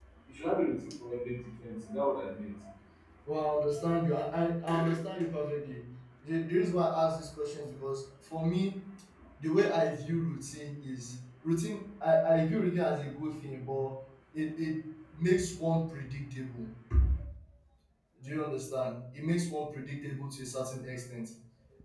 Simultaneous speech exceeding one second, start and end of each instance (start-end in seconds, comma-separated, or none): none